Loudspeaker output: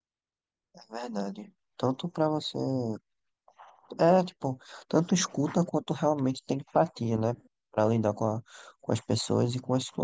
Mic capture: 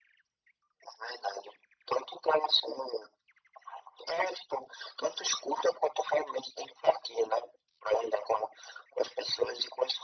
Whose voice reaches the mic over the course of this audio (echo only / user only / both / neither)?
echo only